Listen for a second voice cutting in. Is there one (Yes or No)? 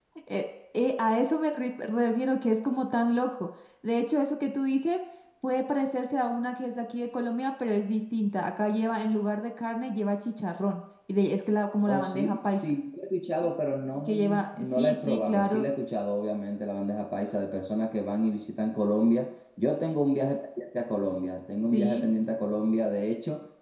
Yes